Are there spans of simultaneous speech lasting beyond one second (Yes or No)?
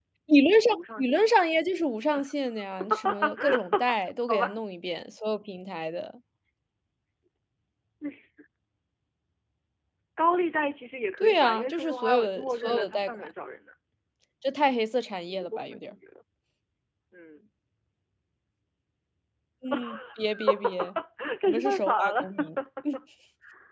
Yes